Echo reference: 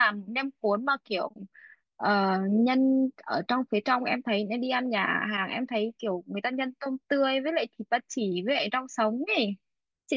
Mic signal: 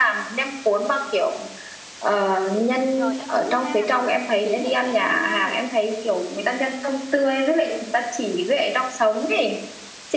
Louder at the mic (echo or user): echo